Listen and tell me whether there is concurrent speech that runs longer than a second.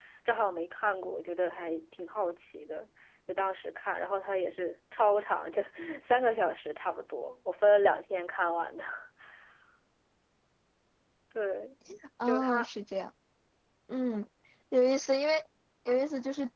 No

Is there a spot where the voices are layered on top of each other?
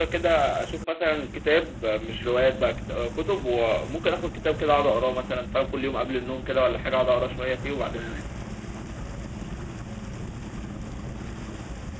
No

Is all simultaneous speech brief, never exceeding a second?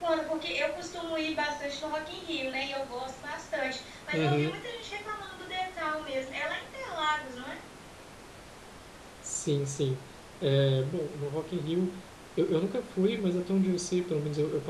Yes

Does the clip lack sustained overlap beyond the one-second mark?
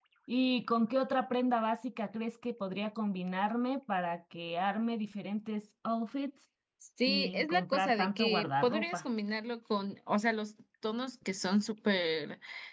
No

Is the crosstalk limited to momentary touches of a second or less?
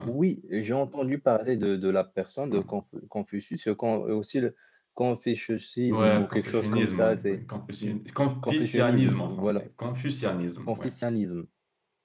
No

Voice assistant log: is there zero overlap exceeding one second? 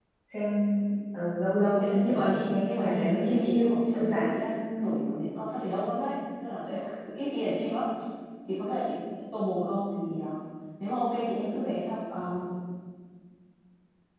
No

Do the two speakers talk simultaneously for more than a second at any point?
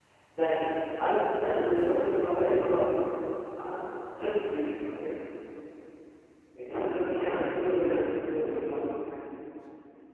Yes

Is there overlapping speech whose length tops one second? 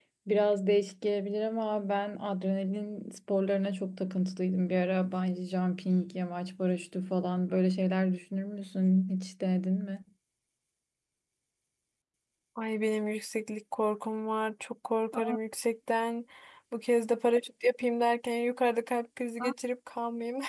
No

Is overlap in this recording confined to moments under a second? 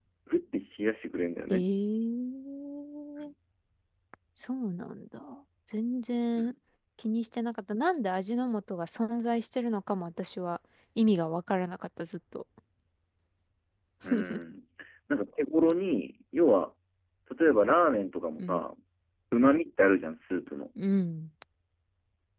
Yes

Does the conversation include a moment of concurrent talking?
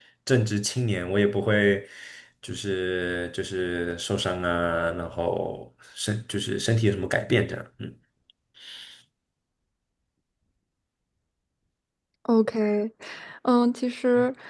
No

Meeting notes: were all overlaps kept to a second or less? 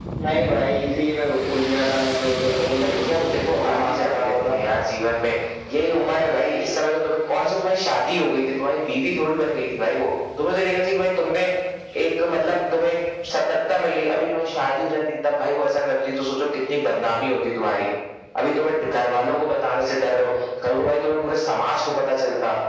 No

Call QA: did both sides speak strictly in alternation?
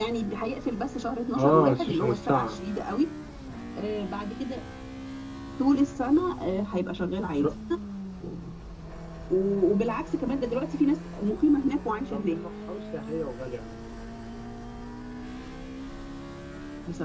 No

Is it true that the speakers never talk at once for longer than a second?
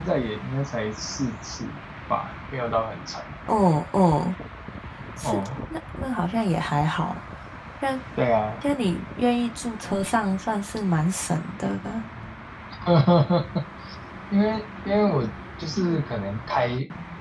Yes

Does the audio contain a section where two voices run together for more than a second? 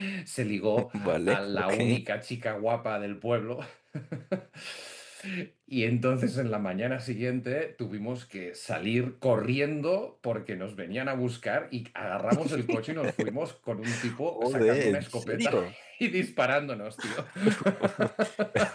Yes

